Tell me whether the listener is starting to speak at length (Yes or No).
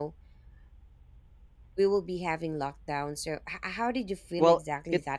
Yes